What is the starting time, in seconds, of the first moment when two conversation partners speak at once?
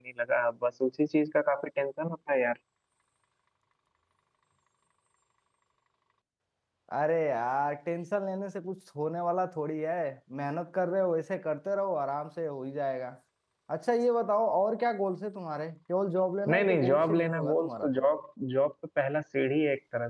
16.5 s

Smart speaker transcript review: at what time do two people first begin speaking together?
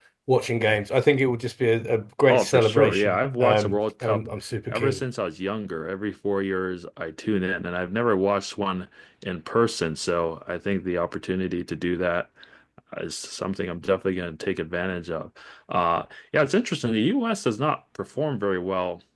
2.3 s

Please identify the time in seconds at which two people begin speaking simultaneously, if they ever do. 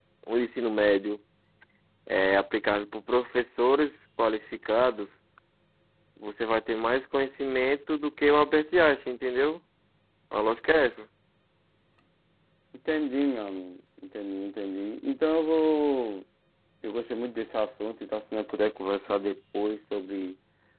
none

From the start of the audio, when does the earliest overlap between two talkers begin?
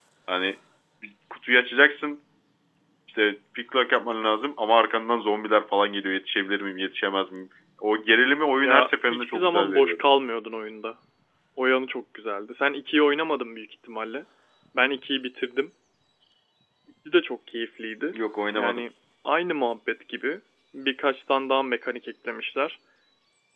8.6 s

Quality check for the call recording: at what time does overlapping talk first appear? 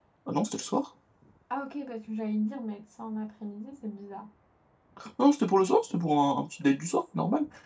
none

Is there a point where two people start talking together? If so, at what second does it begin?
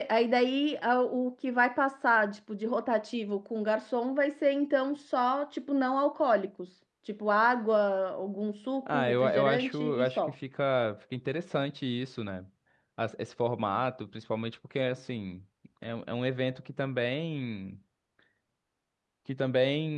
8.9 s

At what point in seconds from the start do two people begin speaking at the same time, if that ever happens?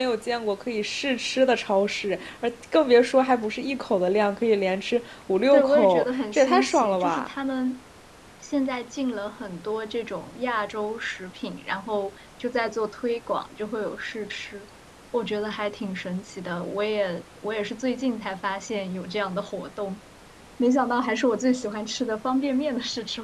5.5 s

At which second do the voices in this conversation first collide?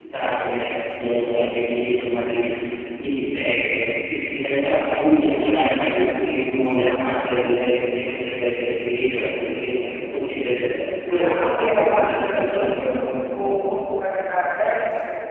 11.1 s

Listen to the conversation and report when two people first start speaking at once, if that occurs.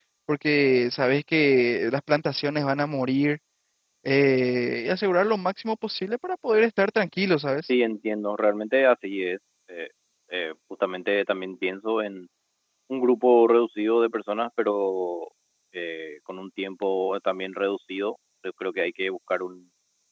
none

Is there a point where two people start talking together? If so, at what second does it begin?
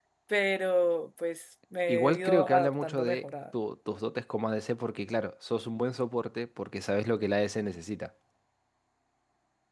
1.9 s

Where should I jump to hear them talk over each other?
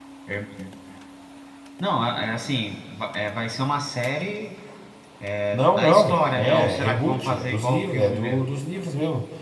5.5 s

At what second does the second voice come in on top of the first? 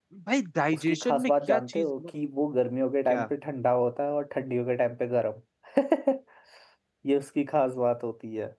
0.7 s

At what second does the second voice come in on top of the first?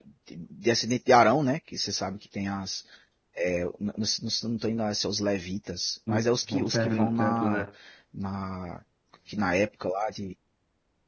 6.1 s

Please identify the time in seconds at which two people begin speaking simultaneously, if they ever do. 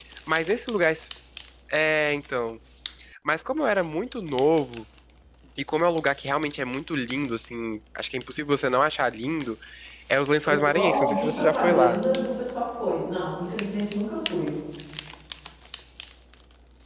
10.5 s

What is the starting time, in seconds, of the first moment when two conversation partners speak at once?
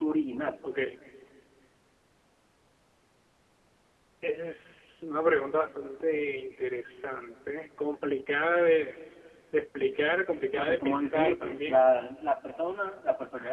10.6 s

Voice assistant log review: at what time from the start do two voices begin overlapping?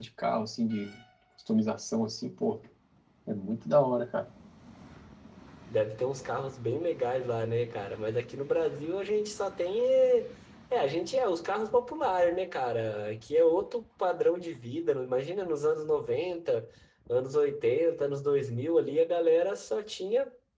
none

